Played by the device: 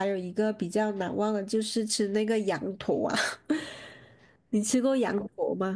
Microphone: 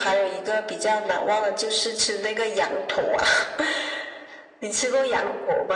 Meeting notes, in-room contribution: none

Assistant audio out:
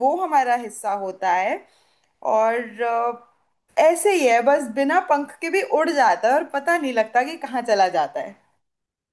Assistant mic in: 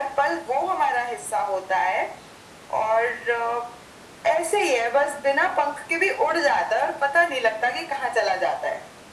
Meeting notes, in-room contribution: none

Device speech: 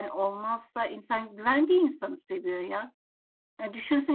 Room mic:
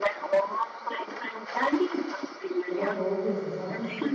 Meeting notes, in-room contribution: present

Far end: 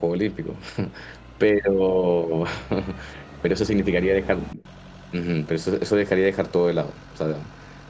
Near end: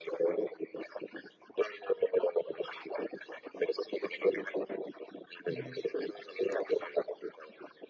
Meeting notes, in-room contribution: present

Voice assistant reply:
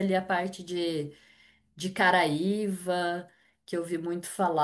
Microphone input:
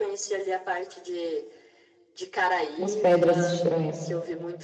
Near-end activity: present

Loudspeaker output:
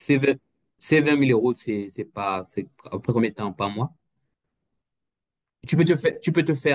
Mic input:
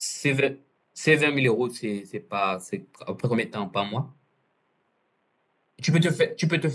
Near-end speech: none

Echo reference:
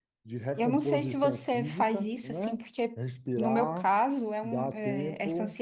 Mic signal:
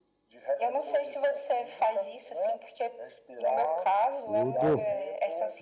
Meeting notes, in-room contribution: present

